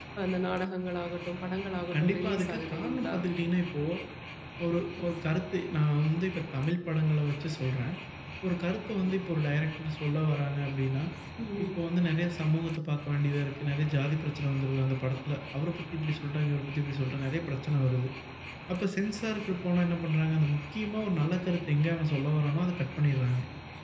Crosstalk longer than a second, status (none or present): present